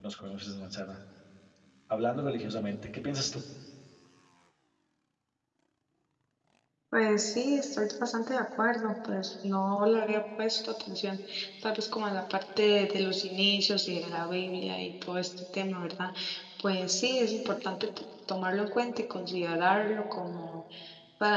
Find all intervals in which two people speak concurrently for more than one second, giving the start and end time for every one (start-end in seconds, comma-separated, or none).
none